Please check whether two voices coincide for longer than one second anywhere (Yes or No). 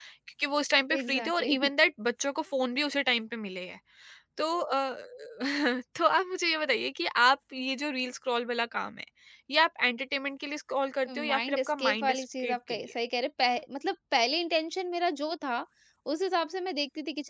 Yes